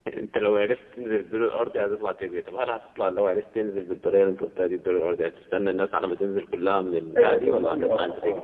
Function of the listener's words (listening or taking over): taking over